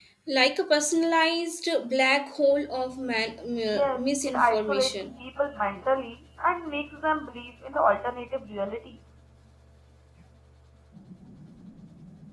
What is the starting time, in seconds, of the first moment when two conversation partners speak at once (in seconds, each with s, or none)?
3.7 s